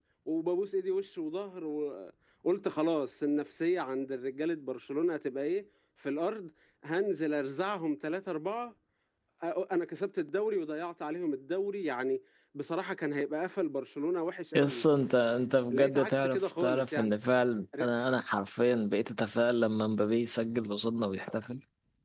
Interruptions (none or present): present